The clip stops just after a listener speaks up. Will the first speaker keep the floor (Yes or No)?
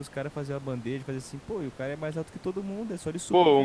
No